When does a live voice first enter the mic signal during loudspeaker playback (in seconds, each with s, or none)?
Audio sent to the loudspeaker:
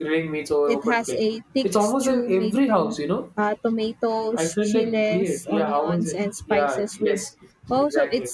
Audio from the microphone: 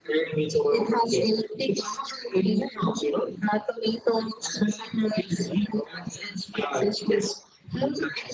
none